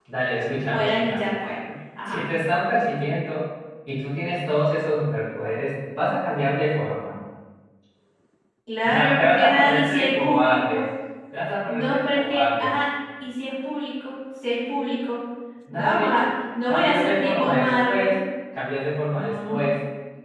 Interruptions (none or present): present